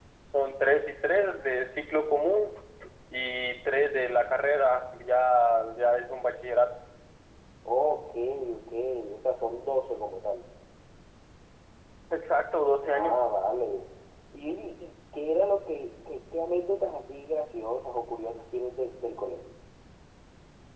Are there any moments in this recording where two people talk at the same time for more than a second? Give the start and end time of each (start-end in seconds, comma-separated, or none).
none